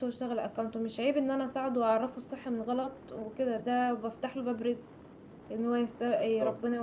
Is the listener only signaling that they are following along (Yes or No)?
Yes